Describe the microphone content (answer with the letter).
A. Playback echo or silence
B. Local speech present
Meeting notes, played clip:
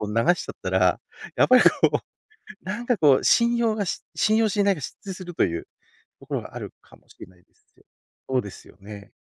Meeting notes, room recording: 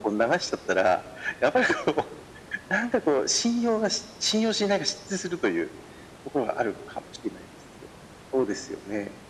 A